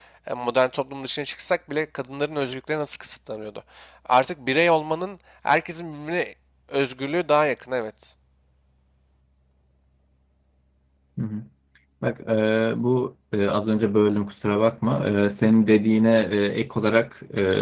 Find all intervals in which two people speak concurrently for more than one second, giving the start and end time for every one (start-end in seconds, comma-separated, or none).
none